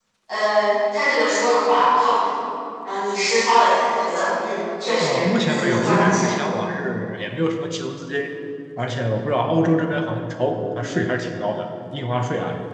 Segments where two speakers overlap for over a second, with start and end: 5.0-6.4

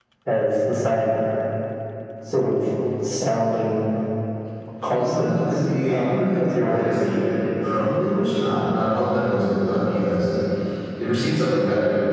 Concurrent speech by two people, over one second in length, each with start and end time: 5.0-7.0

